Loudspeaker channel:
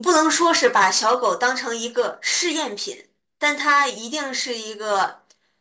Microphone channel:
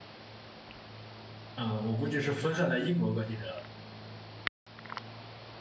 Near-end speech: present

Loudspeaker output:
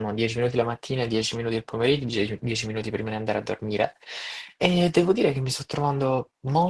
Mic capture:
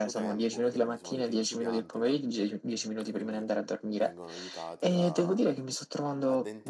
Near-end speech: present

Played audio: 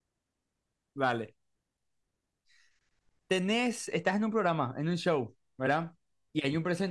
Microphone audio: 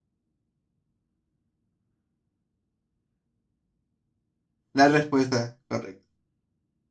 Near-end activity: present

